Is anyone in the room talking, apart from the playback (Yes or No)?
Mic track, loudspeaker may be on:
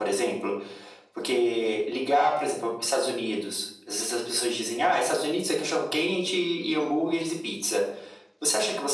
No